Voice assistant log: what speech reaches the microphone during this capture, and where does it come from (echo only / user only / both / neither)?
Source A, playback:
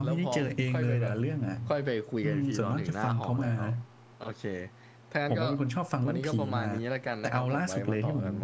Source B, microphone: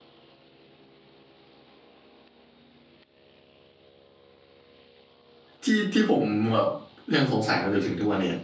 user only